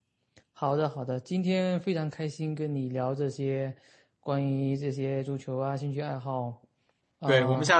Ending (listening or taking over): taking over